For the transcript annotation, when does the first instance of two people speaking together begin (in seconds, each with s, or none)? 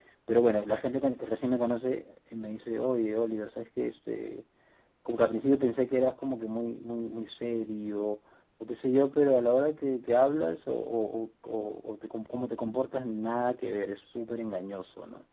none